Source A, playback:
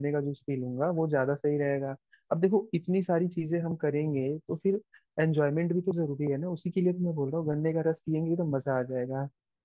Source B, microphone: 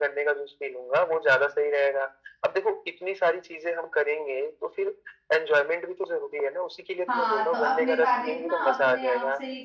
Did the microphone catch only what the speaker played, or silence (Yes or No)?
No